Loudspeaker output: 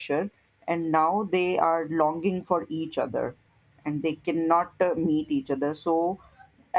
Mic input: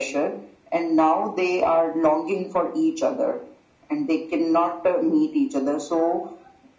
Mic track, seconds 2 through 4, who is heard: echo only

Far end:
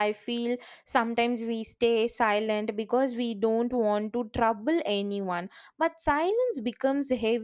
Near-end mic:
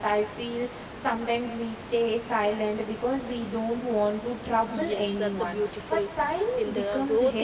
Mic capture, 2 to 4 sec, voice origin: echo only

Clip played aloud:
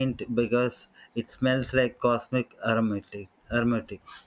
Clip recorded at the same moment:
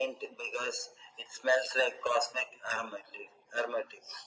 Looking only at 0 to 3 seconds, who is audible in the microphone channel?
echo only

